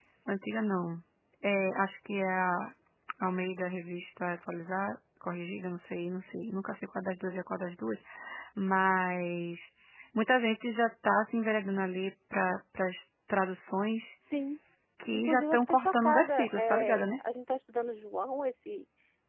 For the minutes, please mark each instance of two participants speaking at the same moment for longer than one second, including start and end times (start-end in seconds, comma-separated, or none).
15.1-17.1